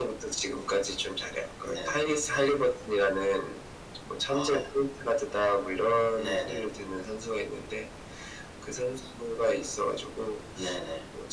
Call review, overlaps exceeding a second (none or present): none